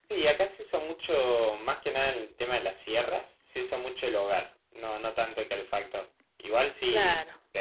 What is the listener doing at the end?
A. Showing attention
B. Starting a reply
A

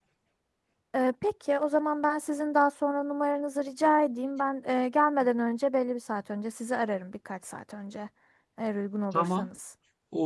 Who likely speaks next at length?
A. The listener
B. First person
A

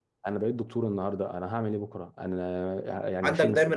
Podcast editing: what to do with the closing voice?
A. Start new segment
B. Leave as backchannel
A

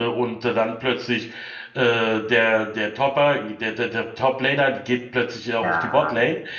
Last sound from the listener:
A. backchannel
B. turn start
A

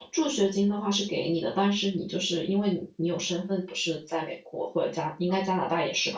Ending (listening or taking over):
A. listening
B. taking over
A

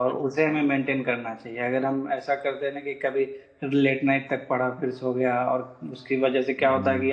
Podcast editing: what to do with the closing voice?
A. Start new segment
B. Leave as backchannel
B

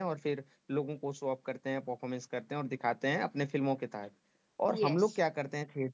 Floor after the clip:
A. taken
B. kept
B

